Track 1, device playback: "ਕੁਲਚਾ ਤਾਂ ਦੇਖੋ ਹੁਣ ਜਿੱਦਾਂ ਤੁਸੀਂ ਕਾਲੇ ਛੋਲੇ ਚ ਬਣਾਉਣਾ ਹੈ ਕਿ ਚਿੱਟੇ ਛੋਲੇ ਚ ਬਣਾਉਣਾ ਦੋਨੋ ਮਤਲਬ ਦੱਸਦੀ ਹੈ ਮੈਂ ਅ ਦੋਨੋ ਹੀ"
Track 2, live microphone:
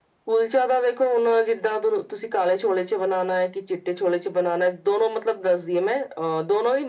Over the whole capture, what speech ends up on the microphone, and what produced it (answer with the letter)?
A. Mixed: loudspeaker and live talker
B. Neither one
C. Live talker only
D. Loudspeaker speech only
D